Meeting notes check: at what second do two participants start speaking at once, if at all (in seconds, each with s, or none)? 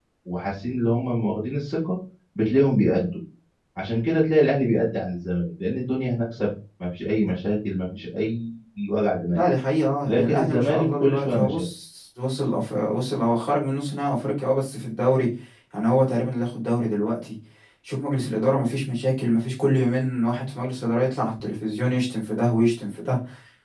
10.1 s